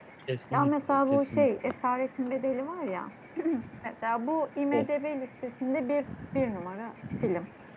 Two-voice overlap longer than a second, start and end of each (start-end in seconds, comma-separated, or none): 0.5-1.8